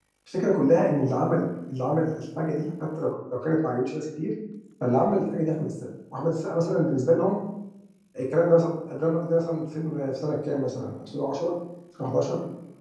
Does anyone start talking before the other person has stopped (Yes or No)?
No